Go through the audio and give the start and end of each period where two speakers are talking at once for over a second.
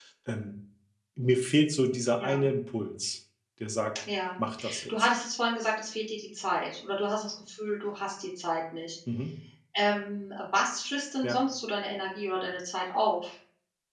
none

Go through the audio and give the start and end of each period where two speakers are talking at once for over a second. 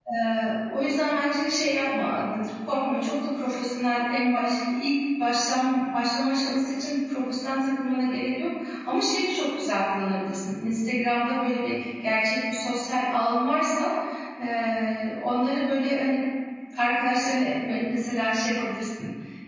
none

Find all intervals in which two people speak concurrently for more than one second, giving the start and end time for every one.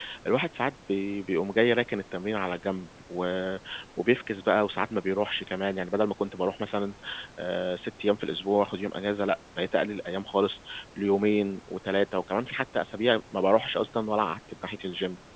none

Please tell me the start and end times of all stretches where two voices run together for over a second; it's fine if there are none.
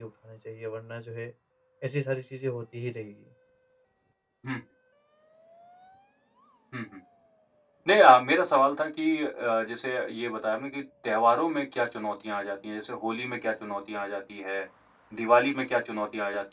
none

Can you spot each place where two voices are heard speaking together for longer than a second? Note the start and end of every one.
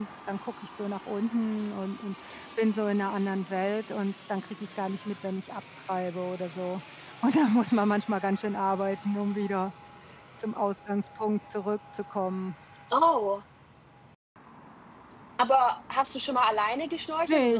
none

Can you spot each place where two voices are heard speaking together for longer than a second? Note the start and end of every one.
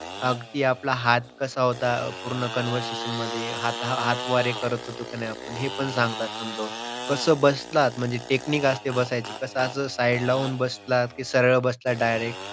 none

